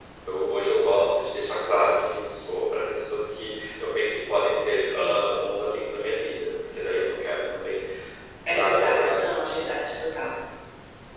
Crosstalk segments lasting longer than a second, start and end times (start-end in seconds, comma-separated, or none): 8.5-9.7